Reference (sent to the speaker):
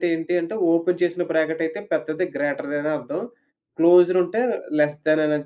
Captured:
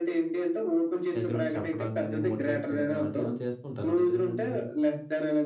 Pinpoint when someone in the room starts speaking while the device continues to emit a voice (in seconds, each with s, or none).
1.2 s